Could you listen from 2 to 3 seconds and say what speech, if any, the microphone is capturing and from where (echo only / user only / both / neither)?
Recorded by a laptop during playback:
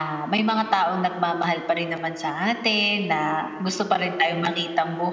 echo only